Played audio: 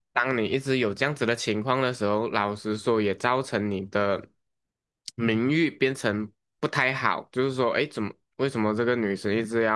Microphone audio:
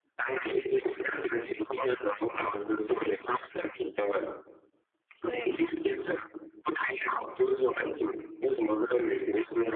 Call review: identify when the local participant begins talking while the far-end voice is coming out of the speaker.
5.2 s

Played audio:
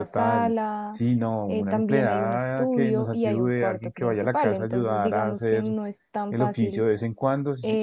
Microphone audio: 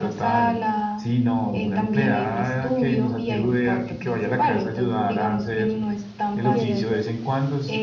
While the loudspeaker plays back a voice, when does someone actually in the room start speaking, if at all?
6.5 s

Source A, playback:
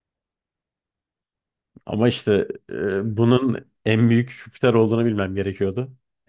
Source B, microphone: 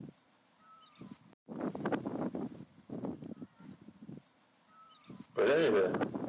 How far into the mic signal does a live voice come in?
5.3 s

